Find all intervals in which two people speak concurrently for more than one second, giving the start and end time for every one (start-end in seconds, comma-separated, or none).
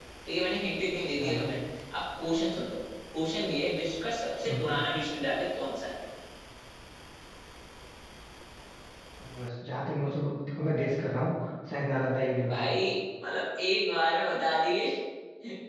none